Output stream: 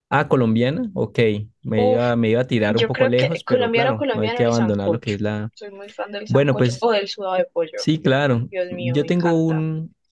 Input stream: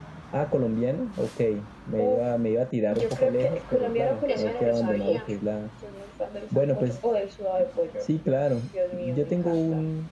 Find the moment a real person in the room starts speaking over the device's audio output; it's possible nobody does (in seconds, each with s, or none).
4.3 s